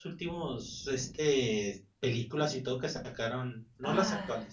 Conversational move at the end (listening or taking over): listening